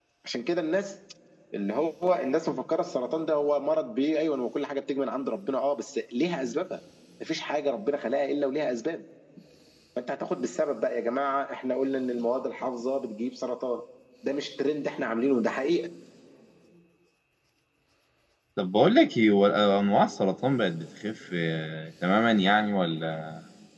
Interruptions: none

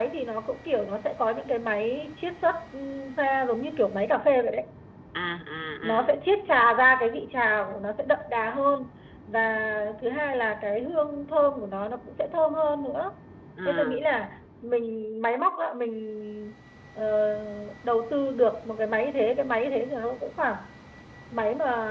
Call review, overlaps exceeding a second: none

